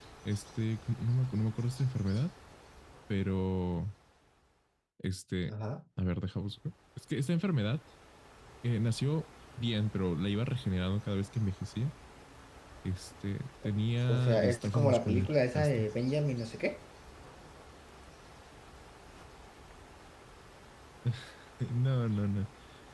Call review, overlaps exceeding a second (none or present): present